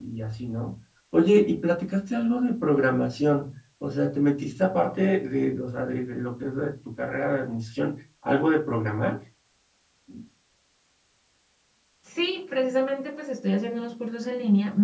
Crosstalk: none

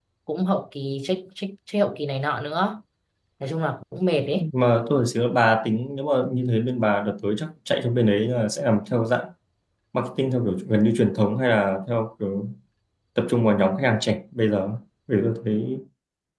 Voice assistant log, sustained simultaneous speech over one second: none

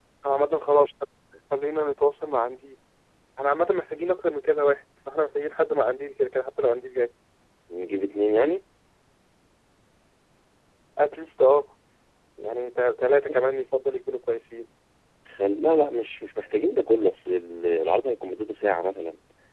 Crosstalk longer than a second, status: none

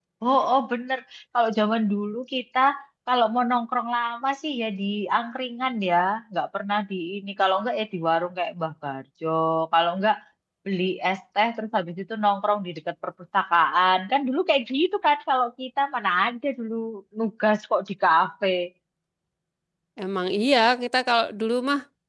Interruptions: none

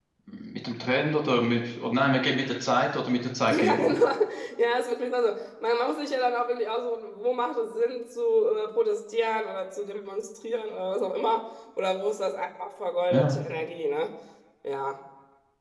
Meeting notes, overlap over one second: none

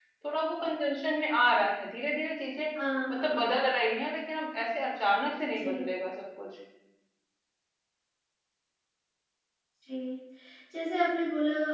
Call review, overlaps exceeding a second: none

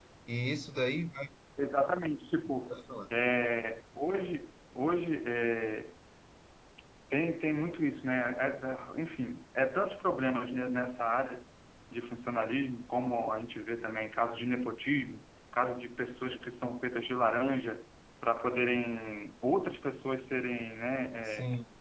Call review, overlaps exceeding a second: none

